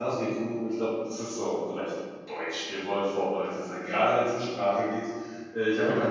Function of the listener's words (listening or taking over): listening